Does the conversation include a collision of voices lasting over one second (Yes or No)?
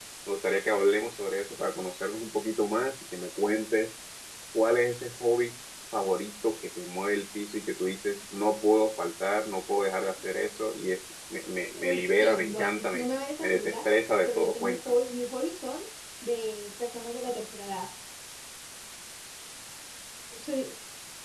Yes